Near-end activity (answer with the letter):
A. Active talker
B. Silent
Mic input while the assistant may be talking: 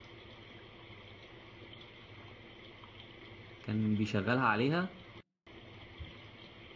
A